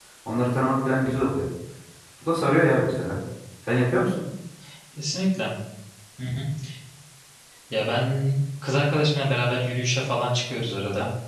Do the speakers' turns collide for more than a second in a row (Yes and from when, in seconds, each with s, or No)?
No